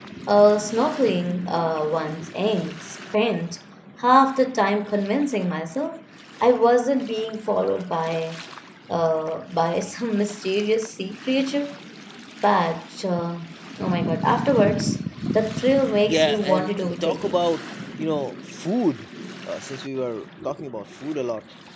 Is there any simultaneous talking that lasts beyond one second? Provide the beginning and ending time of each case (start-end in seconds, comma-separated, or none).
16.1-17.4